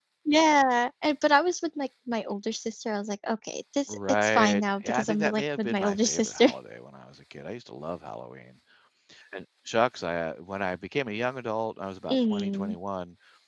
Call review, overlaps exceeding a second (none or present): present